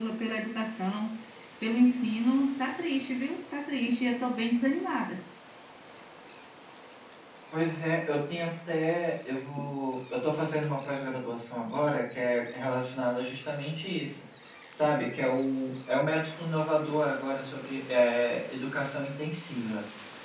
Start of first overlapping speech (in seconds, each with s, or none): none